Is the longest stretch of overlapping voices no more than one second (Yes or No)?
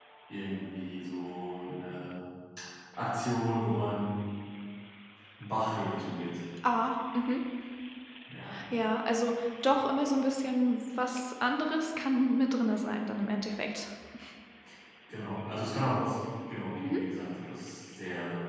Yes